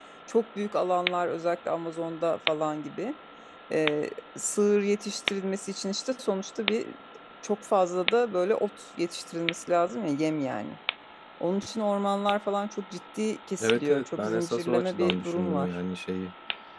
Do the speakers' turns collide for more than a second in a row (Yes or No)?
Yes